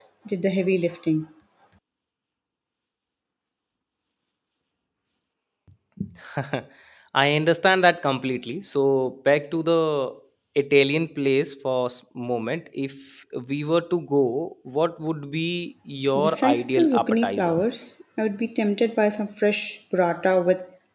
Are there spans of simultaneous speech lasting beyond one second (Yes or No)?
Yes